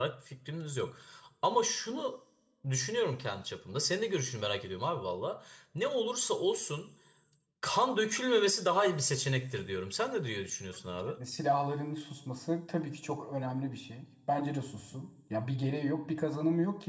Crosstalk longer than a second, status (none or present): none